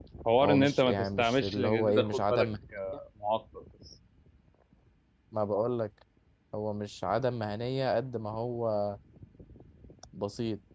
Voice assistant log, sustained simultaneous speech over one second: present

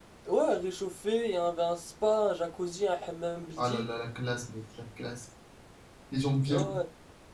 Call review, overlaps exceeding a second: none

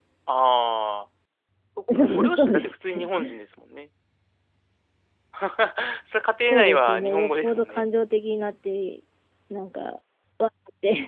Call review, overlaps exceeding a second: present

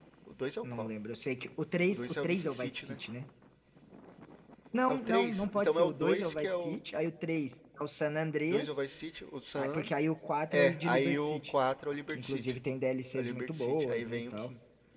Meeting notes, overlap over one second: present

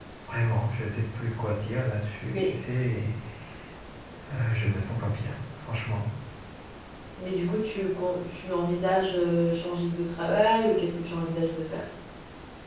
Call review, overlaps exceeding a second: none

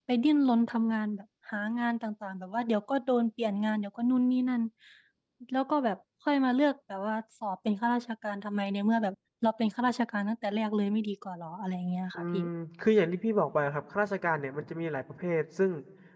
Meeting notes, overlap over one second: none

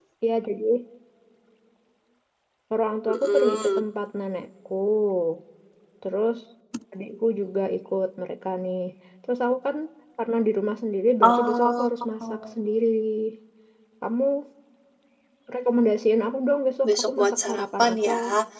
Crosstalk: present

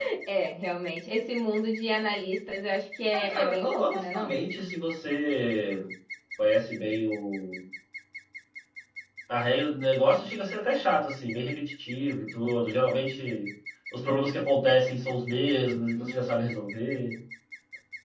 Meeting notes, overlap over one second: present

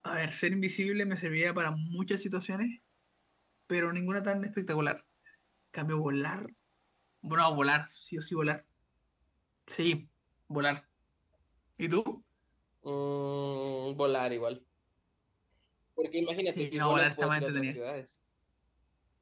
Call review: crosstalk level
present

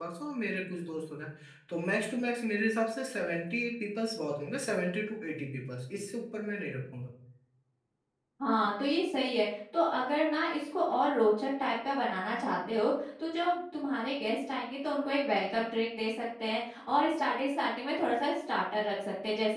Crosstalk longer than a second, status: none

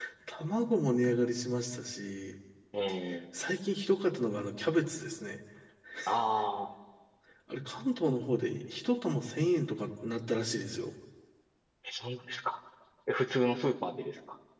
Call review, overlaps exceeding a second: none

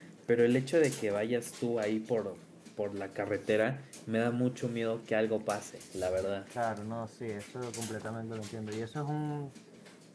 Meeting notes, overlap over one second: none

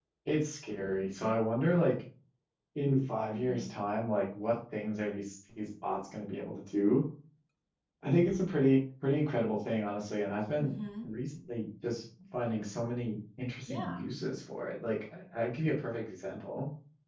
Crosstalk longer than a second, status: none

